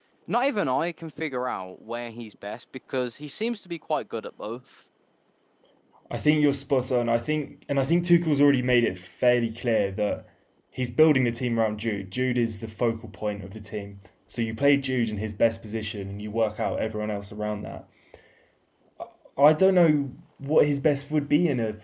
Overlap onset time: none

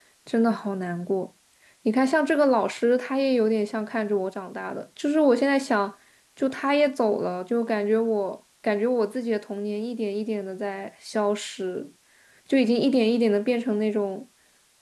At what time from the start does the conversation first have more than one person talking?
none

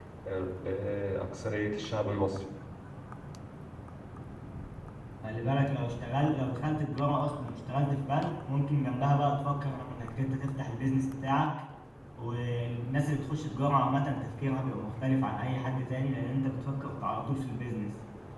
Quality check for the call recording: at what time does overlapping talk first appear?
none

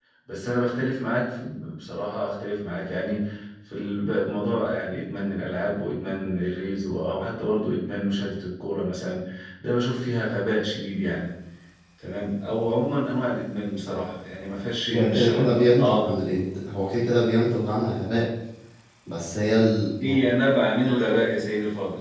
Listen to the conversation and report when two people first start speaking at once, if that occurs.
15 s

